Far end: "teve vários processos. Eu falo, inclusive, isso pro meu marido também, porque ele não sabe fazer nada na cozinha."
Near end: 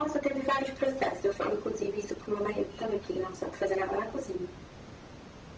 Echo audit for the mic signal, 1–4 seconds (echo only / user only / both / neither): echo only